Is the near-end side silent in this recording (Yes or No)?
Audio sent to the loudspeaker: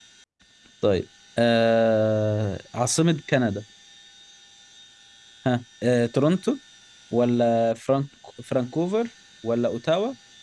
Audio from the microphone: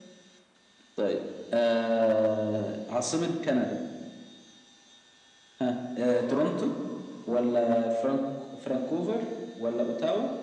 No